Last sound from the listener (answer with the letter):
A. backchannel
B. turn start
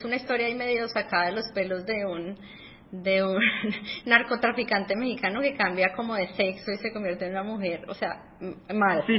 B